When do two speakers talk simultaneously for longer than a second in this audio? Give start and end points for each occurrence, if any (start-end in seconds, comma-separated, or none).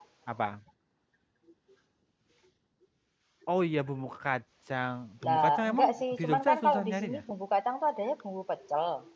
5.3-7.2